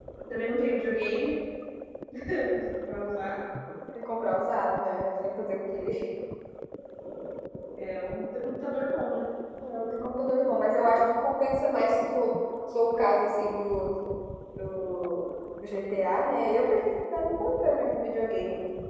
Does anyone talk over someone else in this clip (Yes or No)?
No